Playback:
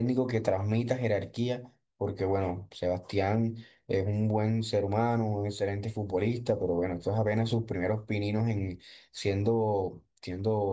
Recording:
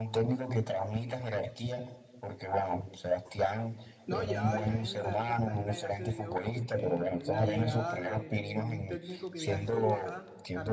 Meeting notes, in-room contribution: present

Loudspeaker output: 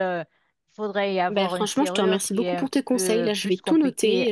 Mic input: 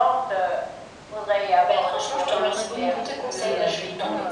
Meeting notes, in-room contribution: present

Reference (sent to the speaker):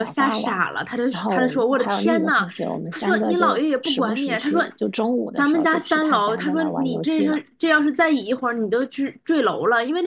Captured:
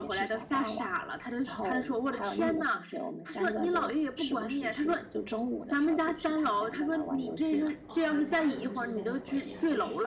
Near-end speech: present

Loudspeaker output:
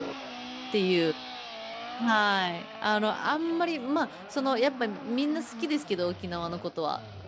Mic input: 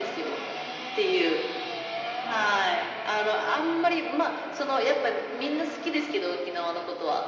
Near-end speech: none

